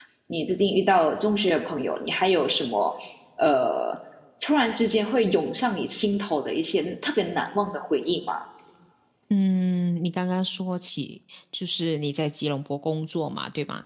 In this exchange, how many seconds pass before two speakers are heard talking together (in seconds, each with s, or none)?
none